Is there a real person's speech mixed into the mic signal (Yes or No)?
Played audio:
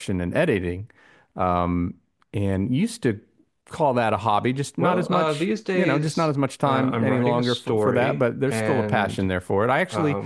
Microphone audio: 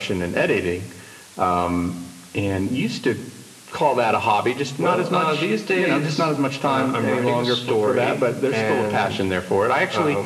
No